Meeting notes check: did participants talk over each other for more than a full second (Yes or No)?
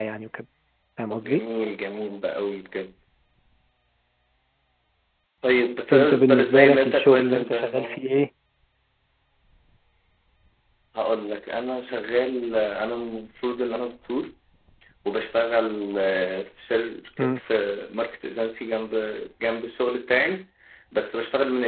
Yes